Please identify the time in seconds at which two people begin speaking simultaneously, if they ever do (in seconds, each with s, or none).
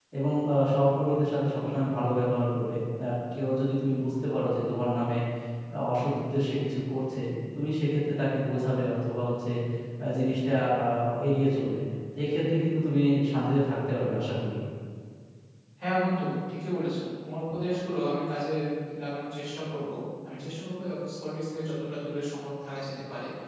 none